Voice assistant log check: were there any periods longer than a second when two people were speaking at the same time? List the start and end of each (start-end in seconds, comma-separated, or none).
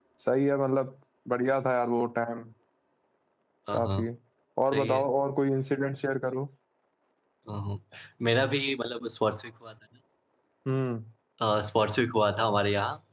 none